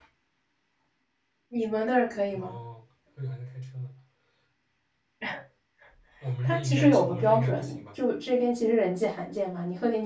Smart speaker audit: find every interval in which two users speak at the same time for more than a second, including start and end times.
6.4-8.0

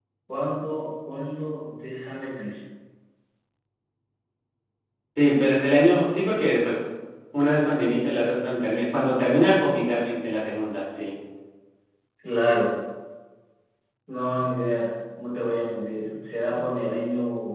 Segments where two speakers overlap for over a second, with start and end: none

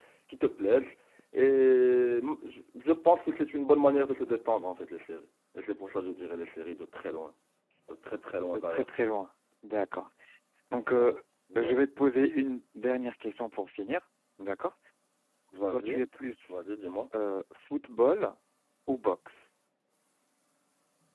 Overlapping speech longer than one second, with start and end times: none

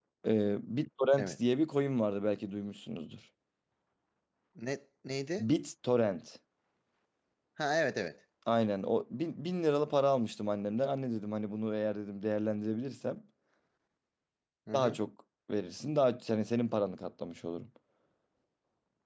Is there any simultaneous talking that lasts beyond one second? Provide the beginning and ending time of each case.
none

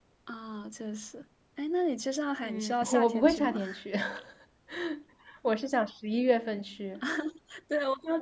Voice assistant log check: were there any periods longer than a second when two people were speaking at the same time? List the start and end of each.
2.4-3.6

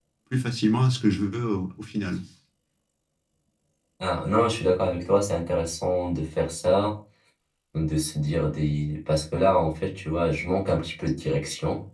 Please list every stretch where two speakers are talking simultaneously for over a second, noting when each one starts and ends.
none

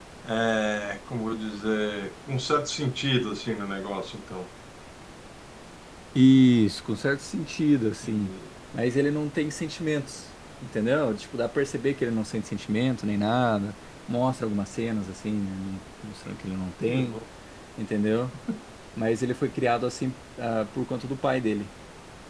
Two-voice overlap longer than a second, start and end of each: none

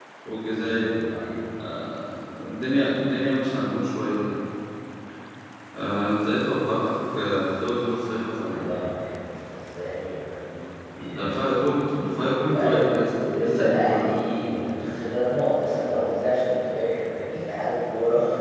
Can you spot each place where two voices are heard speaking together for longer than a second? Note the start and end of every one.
12.5-14.1

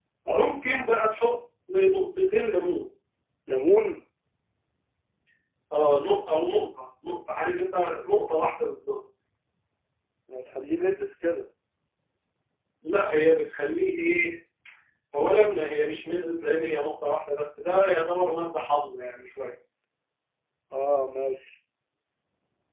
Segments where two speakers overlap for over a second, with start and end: none

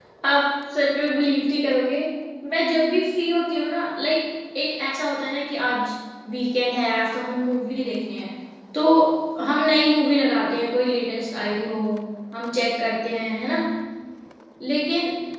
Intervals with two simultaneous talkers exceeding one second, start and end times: none

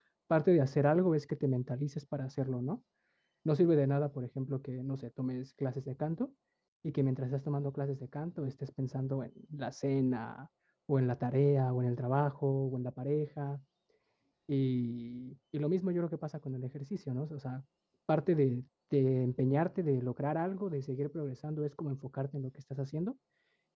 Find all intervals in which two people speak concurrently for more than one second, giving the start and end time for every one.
none

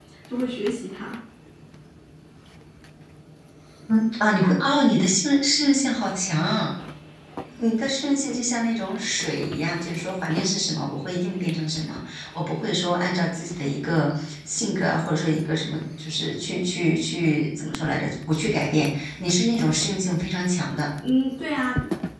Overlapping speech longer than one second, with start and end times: none

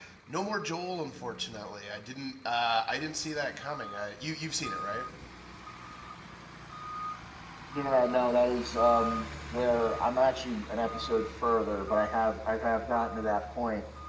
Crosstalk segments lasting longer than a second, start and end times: none

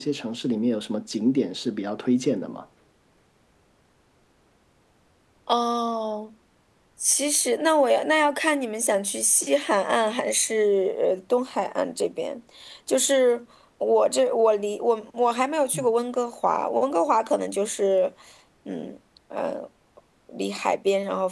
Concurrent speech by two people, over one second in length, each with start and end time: none

